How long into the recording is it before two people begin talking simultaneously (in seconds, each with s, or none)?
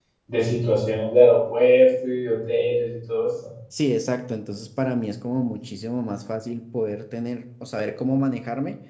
none